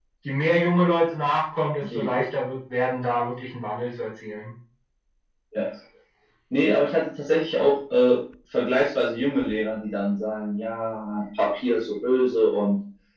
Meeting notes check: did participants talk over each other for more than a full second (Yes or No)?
No